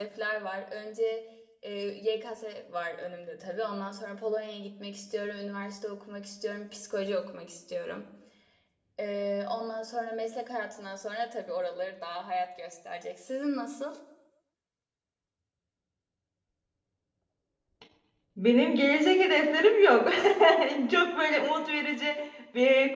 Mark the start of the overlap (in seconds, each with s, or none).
none